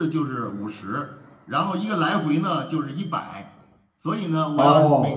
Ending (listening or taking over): listening